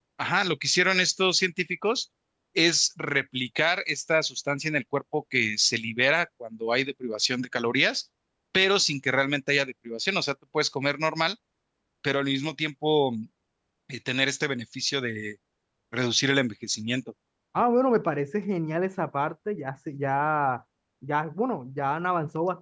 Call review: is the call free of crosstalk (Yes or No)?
Yes